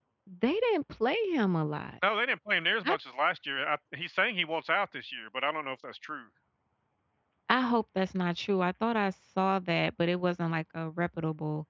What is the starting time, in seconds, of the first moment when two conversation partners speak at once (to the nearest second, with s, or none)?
none